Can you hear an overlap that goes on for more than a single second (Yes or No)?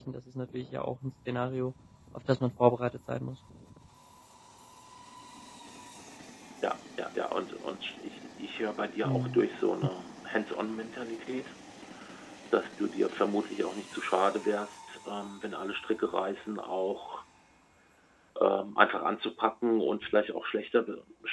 No